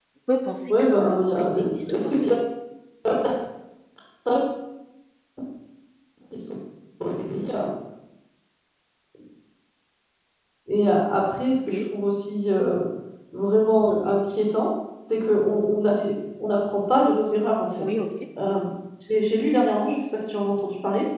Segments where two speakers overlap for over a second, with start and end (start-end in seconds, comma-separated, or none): 0.7-2.2